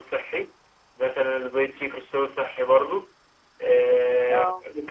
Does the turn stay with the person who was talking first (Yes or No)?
Yes